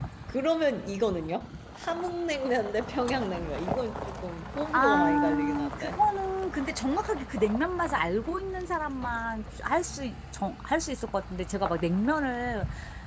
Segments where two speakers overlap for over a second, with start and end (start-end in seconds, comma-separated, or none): 4.7-6.0